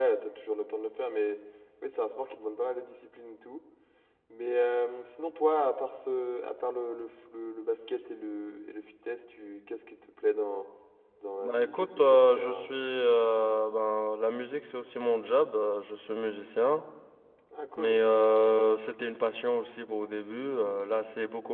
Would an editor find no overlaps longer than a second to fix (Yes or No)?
No